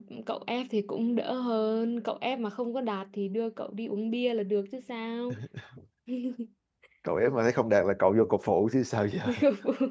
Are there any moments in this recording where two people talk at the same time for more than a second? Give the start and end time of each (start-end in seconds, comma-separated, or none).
none